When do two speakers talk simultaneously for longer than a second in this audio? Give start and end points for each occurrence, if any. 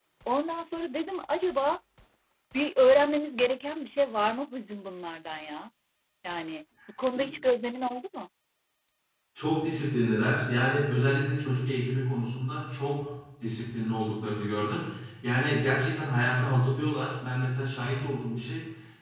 none

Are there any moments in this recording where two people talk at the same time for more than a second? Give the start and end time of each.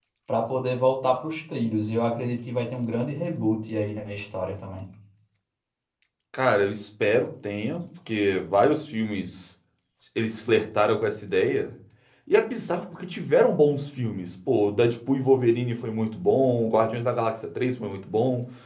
none

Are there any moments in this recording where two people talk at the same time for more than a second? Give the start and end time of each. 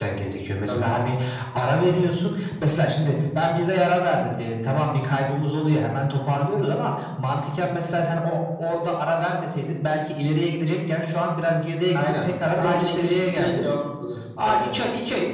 12.0-13.6

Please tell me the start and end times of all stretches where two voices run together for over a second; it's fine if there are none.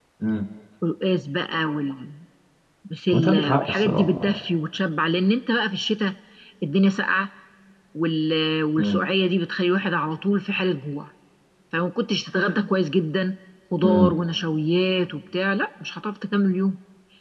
3.1-4.4

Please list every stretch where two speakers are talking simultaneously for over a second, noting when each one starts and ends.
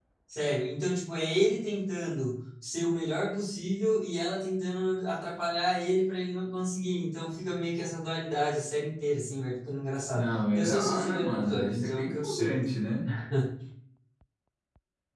10.1-12.5

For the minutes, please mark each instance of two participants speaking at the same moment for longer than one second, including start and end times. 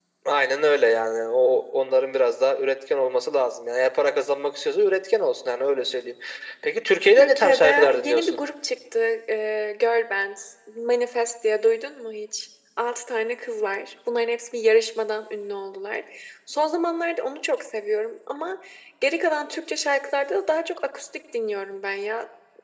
7.1-8.4

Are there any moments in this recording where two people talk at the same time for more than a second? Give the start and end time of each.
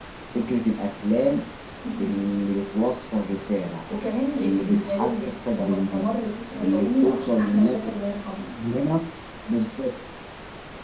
4.4-6.0, 6.6-7.9

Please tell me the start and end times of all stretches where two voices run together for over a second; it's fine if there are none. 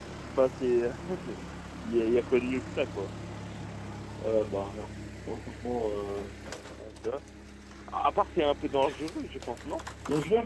none

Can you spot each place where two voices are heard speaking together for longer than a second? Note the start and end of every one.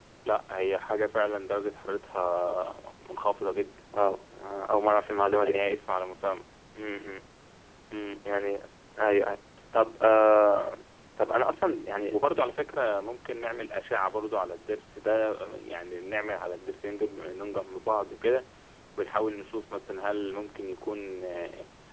none

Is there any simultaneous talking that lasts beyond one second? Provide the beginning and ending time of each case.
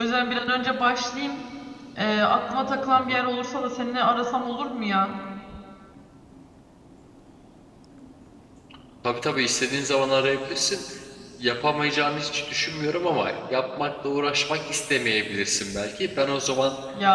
none

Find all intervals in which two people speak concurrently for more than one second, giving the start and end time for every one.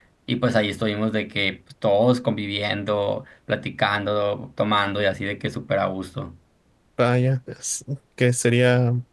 none

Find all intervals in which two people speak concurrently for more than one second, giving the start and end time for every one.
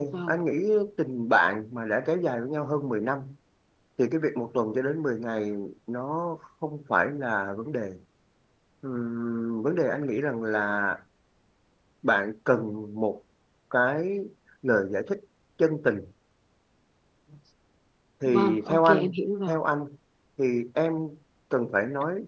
18.2-19.5

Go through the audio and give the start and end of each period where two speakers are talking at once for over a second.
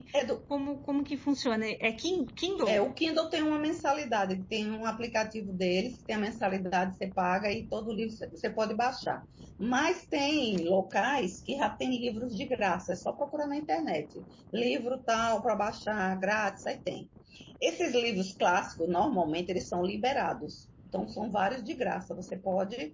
none

